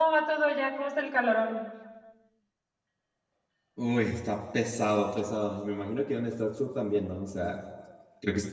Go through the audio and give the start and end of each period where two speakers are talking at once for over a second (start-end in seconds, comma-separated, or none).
none